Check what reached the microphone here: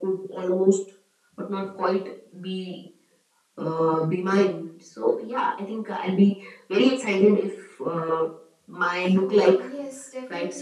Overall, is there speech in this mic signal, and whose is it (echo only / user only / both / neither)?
both